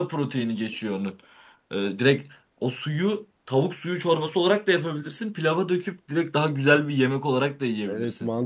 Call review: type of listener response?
taking over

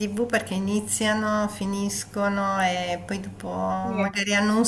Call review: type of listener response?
listening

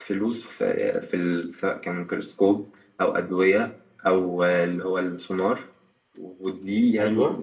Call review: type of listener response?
listening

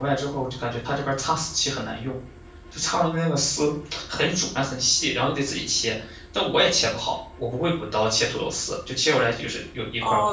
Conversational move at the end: taking over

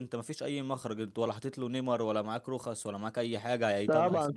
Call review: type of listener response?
taking over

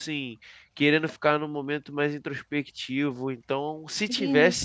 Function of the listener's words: taking over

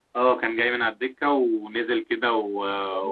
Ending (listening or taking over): listening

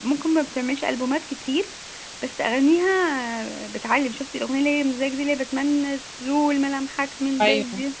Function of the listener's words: taking over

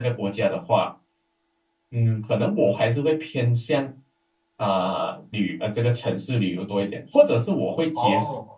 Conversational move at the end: listening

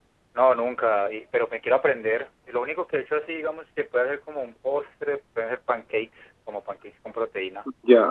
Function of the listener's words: taking over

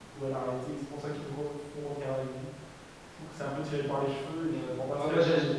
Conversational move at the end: taking over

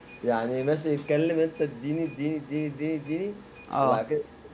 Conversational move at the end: listening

